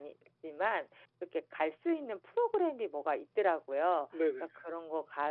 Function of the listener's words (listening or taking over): listening